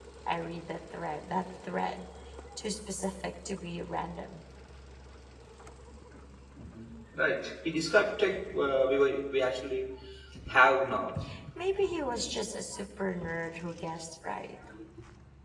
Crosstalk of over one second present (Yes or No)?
No